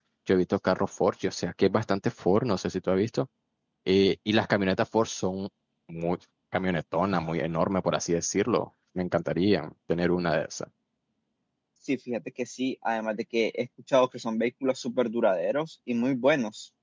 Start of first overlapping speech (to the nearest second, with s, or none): none